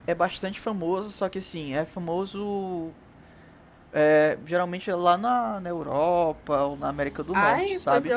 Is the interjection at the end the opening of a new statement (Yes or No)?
Yes